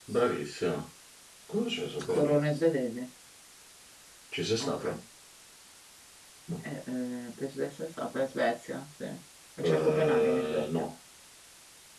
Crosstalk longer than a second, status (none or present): present